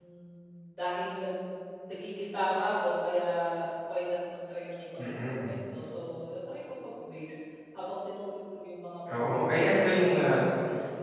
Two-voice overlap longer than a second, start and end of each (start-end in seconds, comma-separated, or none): 9.2-10.4